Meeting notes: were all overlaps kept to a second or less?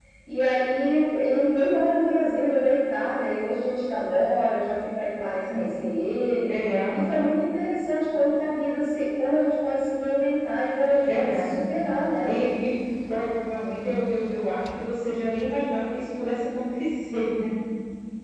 Yes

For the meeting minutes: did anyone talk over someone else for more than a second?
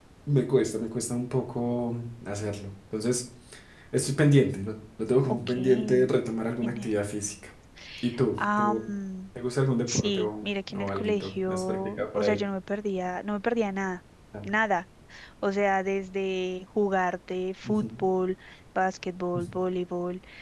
Yes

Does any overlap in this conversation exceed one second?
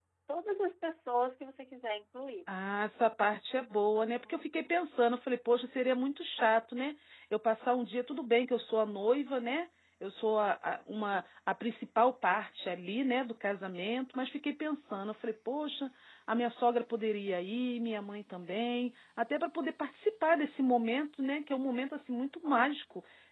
No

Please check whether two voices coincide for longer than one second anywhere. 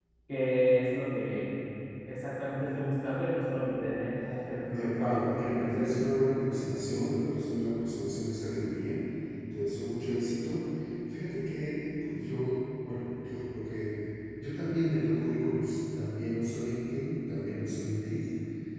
Yes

